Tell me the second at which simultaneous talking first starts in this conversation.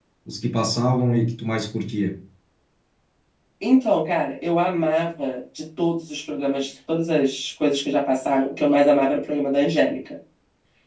none

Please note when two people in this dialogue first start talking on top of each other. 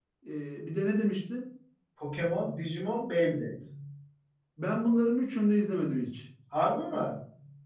none

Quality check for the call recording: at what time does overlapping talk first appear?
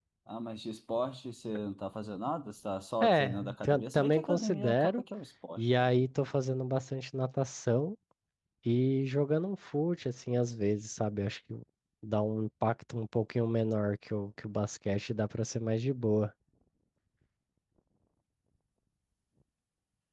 3.0 s

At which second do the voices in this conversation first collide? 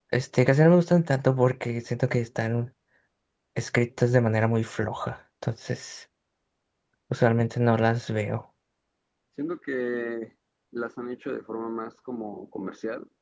none

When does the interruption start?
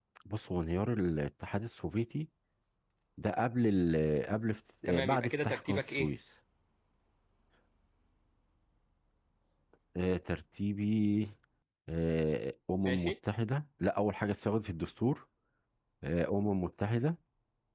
4.9 s

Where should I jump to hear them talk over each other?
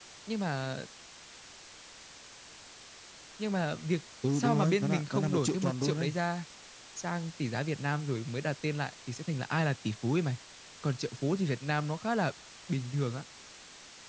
4.2 s

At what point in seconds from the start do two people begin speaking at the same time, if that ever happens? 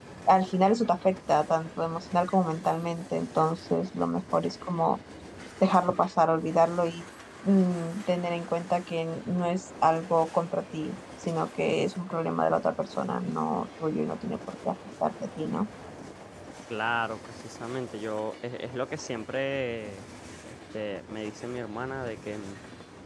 none

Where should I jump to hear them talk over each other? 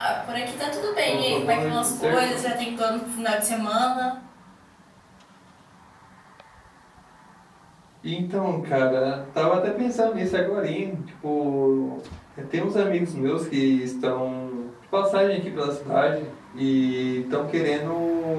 1.0 s

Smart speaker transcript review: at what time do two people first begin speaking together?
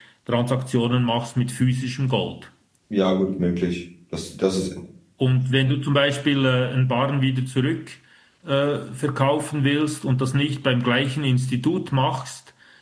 none

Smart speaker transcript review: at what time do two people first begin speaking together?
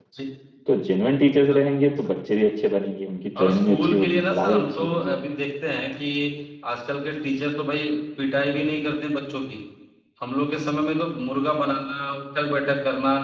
3.4 s

